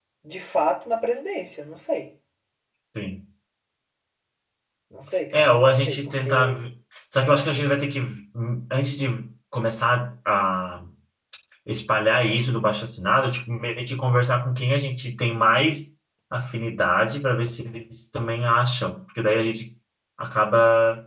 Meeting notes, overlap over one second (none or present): present